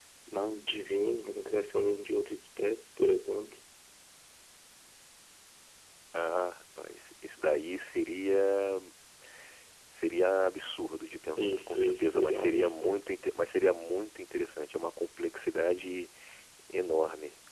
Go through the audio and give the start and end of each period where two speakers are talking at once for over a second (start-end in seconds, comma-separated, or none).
11.4-13.0